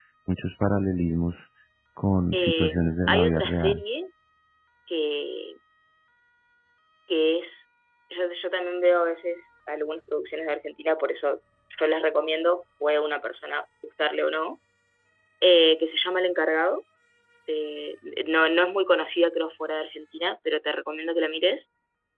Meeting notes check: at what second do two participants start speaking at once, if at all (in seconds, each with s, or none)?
2.3 s